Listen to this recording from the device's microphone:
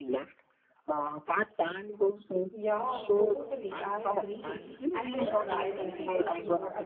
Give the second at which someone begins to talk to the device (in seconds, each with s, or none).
2.5 s